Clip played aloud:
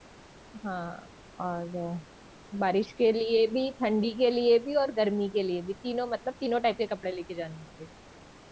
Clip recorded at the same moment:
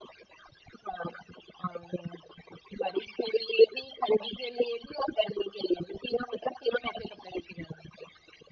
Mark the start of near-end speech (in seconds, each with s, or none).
none